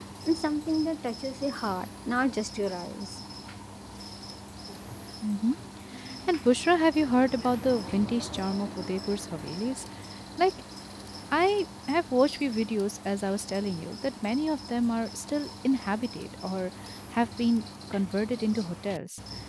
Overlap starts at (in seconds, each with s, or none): none